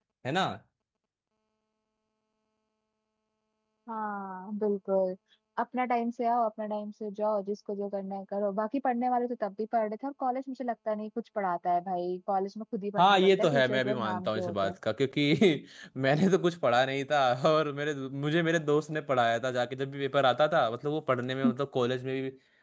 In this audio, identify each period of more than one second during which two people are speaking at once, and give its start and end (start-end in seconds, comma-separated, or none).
13.0-14.7